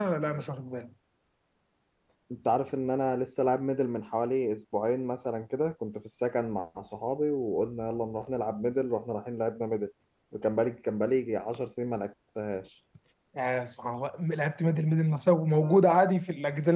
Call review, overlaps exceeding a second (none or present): none